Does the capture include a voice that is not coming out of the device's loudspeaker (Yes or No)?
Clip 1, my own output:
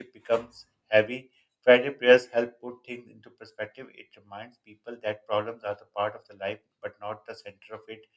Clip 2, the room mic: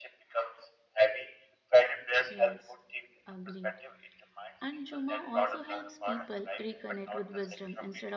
Yes